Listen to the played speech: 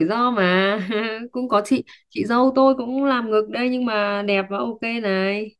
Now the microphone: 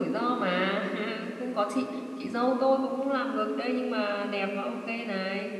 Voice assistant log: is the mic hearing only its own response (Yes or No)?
Yes